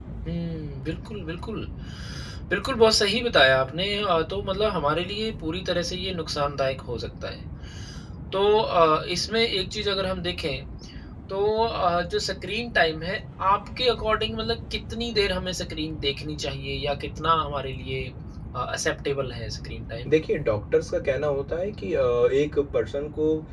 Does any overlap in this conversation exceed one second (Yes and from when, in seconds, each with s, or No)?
No